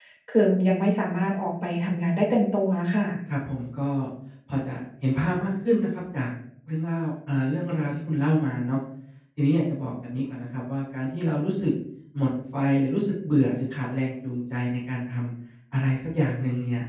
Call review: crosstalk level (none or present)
none